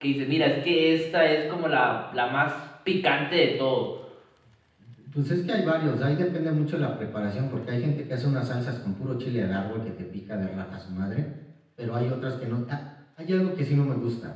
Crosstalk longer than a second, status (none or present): none